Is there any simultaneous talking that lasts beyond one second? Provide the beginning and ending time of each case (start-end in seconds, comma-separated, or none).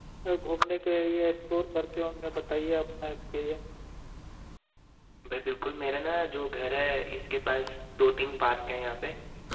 none